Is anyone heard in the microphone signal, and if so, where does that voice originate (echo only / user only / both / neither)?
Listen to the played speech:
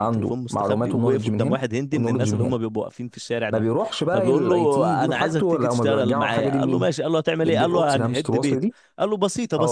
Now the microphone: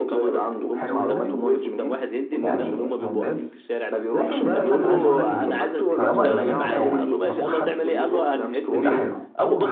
both